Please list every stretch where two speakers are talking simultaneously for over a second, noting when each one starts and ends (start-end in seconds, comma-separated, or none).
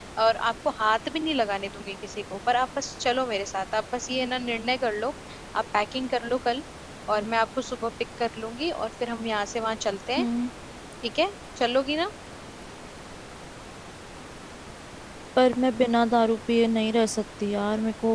none